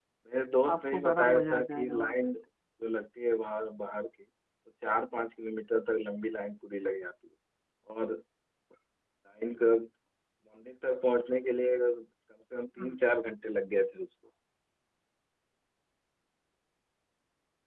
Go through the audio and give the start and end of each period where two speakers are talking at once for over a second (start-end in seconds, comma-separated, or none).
0.7-2.1